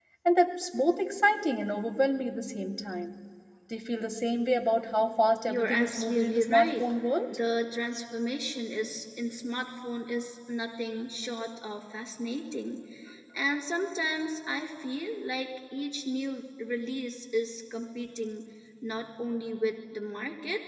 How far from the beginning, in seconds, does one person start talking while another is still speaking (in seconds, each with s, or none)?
5.5 s